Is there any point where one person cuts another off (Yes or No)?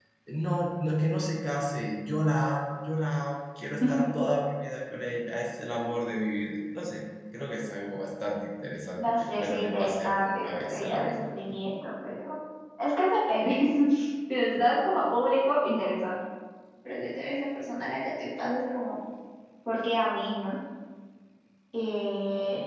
Yes